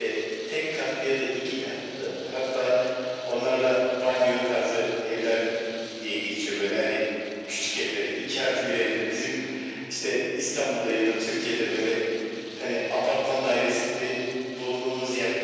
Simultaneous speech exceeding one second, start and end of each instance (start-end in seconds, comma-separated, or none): none